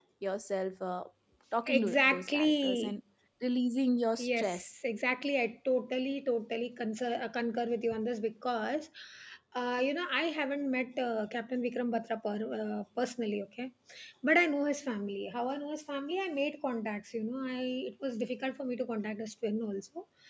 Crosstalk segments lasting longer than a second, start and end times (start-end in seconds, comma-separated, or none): 1.7-3.0